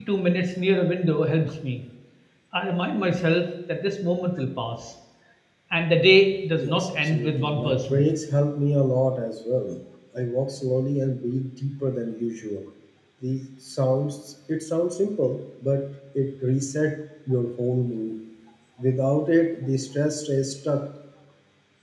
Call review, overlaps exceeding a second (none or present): present